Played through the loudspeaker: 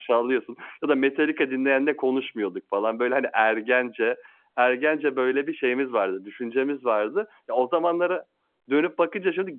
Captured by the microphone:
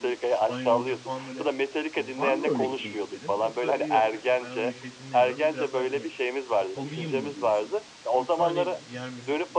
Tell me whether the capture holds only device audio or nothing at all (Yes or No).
No